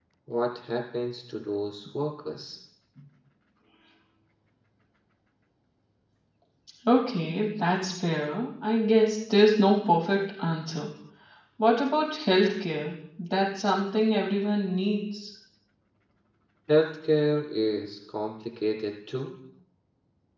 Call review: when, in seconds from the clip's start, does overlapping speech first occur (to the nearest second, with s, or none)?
none